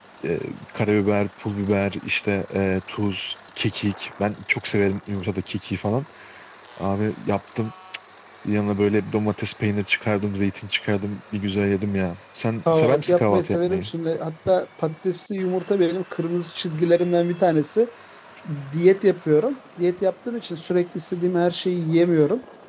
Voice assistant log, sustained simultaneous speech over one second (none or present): present